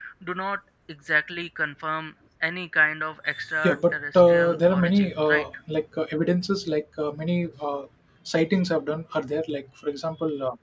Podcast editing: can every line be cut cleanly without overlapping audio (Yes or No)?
No